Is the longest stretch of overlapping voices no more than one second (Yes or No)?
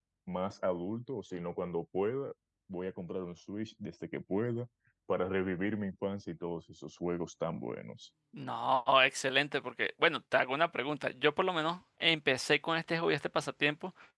Yes